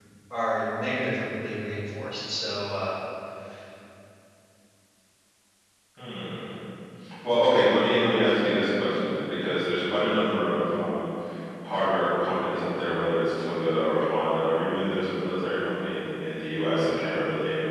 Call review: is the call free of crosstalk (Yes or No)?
Yes